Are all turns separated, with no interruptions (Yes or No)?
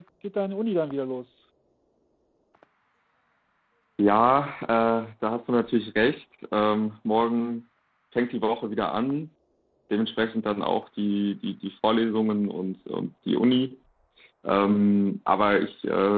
Yes